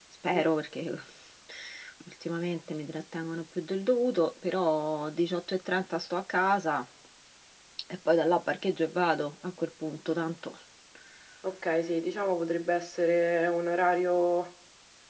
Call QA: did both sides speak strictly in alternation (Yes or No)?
Yes